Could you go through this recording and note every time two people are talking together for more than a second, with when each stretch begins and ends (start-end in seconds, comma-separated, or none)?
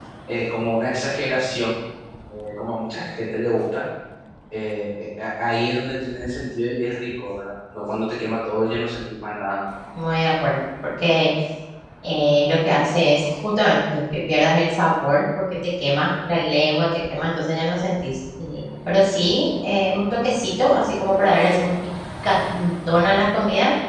none